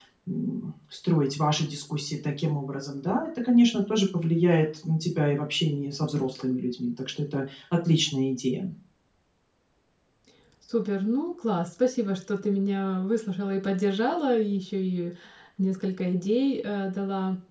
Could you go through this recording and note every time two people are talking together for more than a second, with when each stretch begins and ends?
none

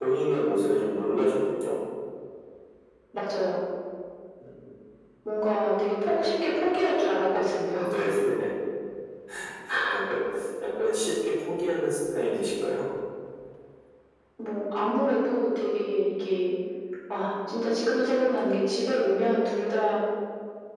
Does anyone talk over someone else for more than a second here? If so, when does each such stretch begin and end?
none

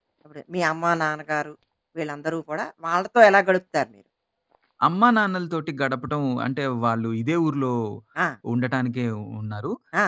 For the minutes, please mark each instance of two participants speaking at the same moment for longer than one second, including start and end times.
none

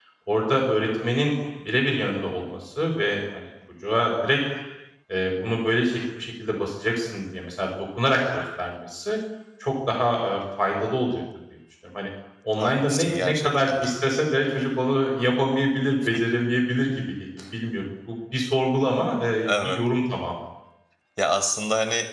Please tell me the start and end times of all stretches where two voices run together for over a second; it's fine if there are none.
12.6-13.9

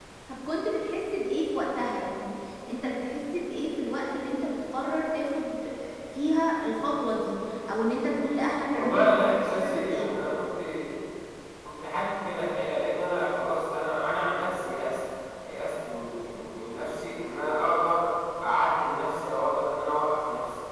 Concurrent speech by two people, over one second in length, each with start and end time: 8.7-10.1

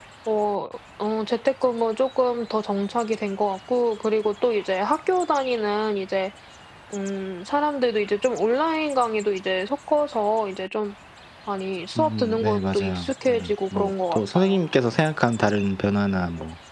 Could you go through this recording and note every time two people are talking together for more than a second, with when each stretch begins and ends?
12.0-14.6

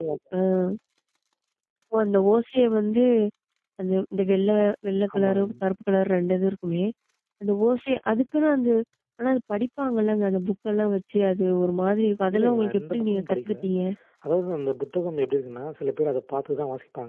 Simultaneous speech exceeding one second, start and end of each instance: 12.3-13.6

